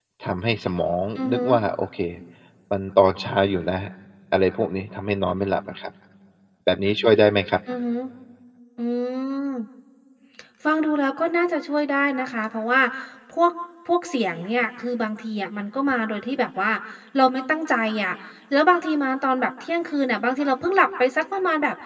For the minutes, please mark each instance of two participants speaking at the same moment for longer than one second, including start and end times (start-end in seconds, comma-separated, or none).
none